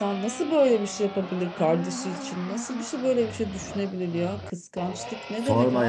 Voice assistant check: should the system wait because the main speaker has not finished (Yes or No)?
No